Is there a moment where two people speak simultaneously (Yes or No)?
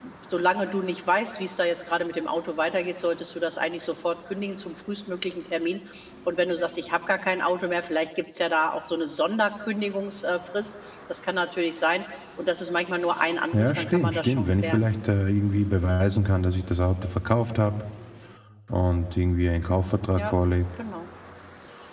Yes